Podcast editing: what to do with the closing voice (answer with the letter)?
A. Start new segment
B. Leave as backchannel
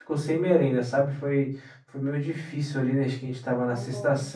B